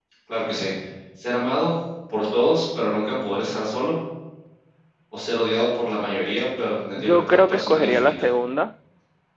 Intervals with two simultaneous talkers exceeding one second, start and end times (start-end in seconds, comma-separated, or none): 7.0-8.3